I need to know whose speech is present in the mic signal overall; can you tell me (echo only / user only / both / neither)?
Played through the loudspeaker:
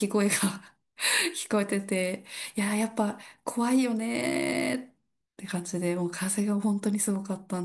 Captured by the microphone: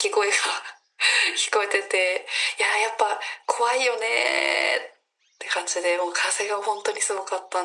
echo only